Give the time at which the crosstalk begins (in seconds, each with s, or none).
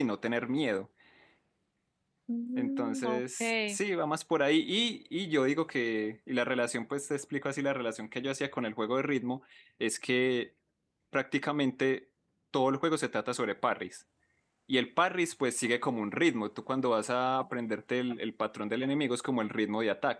2.6 s